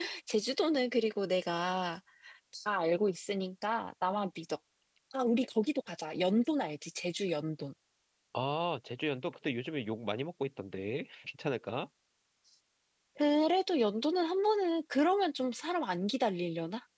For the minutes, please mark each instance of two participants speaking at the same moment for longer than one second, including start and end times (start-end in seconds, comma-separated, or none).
none